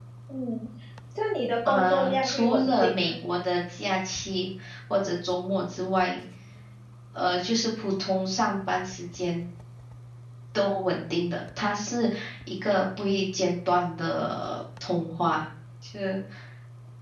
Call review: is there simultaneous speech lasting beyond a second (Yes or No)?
Yes